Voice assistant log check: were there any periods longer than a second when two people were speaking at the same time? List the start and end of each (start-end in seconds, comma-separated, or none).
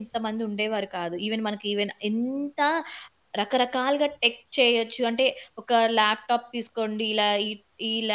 none